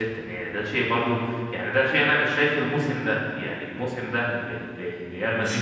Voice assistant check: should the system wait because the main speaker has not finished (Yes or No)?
Yes